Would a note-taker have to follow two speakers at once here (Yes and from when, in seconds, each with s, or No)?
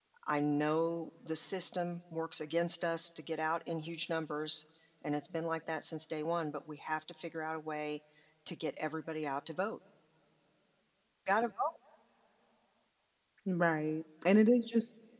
No